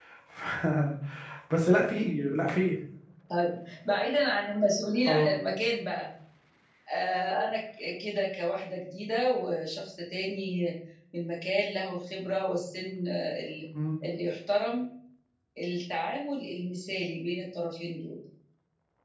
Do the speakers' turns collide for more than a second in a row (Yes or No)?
No